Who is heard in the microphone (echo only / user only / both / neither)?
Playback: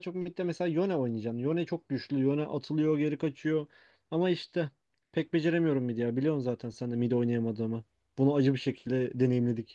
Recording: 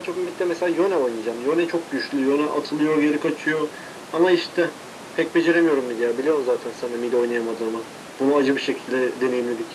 echo only